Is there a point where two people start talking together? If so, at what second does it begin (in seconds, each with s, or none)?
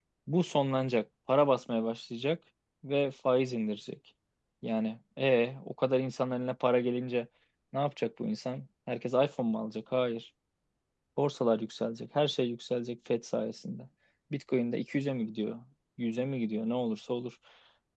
none